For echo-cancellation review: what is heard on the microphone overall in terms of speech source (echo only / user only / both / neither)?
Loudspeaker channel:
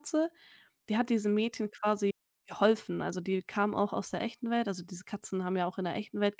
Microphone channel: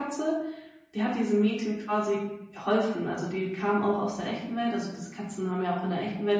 echo only